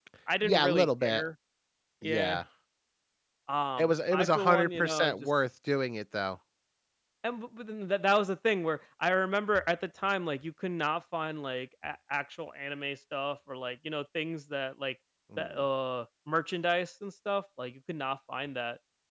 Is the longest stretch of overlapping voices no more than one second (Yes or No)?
No